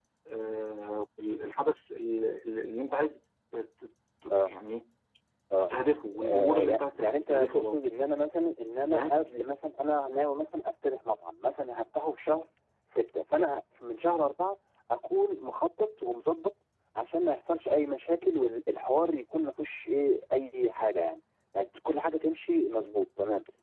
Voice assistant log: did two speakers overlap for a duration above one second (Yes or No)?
Yes